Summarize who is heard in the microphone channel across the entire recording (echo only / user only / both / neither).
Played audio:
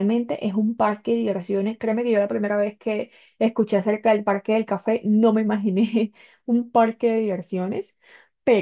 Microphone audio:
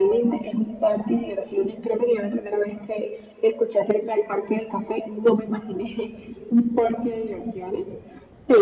echo only